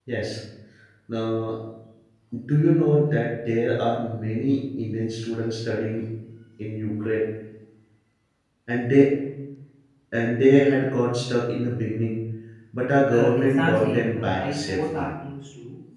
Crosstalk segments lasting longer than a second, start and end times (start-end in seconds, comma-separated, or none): 13.1-15.1